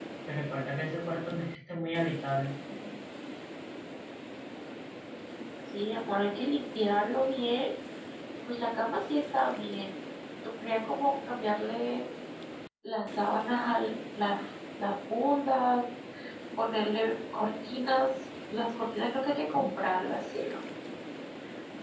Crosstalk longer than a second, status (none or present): none